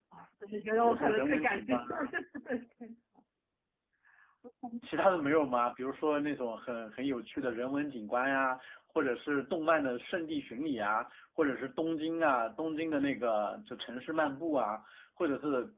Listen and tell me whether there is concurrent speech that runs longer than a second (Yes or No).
Yes